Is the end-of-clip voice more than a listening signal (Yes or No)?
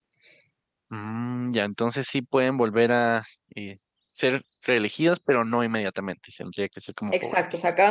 Yes